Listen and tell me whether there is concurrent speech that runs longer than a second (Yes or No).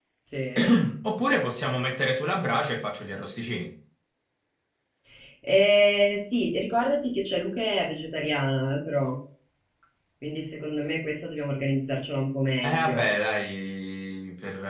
No